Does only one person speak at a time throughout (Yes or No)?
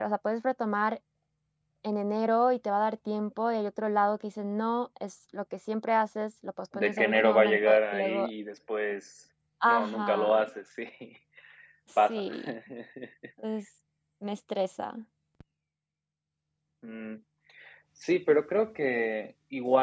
No